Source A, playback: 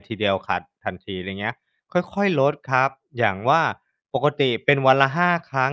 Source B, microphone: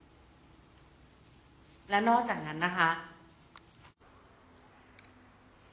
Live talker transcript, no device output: แล้วนอกจากนั้นนะคะ

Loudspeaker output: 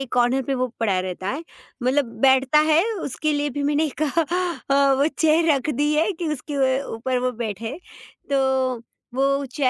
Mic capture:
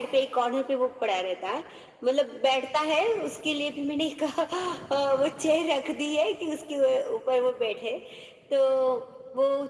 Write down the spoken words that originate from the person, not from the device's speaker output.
none

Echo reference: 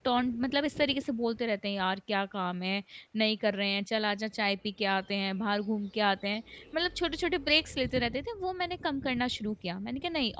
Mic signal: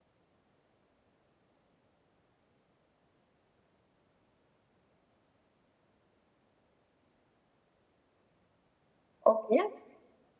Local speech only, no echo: ओके,

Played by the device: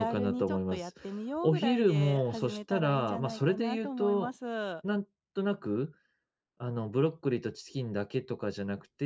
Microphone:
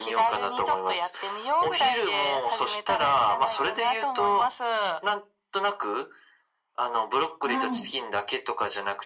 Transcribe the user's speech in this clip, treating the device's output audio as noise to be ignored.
はい。

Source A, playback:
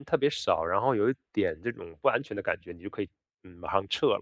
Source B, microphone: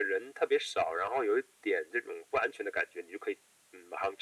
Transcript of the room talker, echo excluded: none

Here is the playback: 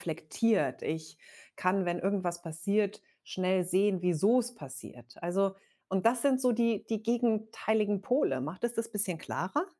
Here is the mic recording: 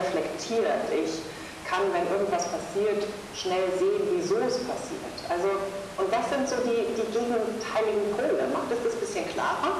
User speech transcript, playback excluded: none

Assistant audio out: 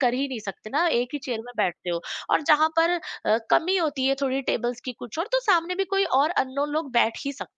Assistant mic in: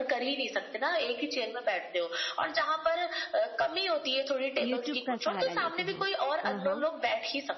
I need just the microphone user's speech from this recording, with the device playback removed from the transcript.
यूट्यूब का सहारा लेते हो? हाँ, हाँ।

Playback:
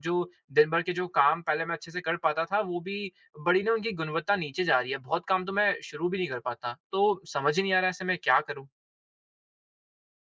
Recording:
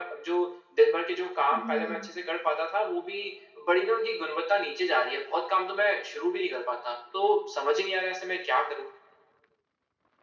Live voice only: हुँ।

